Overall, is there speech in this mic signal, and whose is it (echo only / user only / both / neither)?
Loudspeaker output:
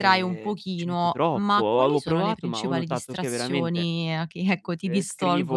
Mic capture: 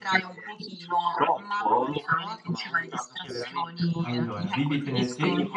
both